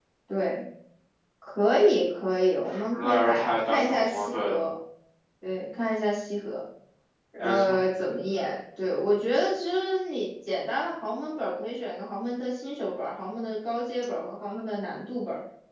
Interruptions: present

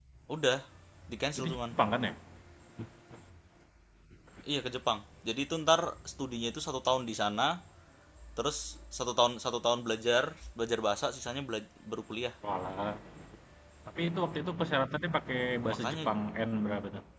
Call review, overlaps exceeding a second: none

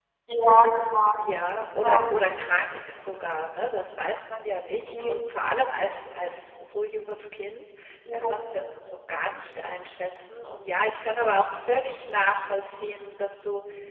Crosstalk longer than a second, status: none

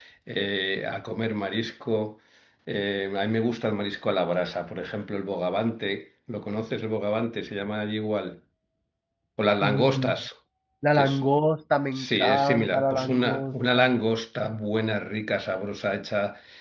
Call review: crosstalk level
present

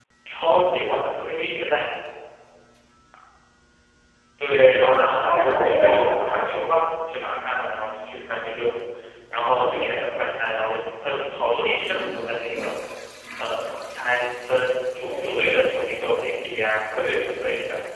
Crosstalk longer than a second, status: present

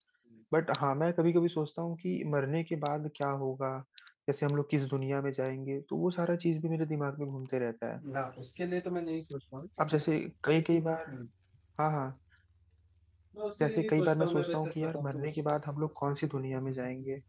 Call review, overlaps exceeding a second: present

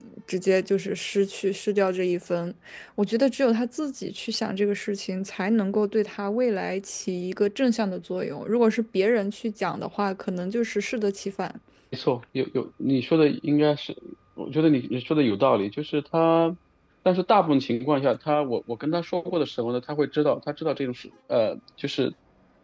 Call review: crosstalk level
none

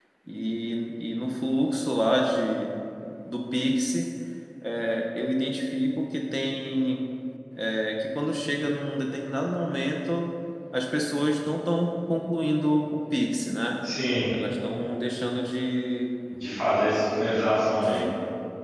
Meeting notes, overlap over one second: none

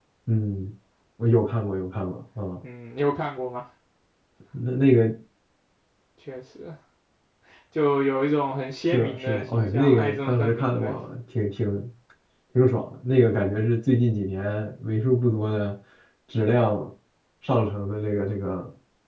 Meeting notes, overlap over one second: present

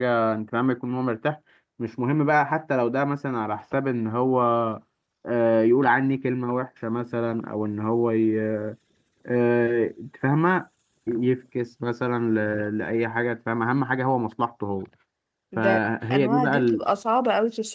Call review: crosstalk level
present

